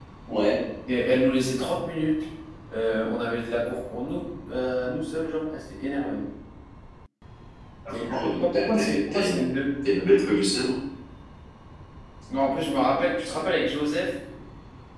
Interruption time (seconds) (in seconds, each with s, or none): 7.9 s